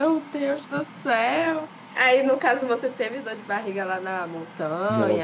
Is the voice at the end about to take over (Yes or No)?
Yes